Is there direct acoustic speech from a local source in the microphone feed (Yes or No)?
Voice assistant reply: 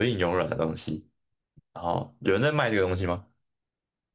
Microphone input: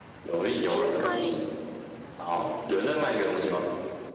Yes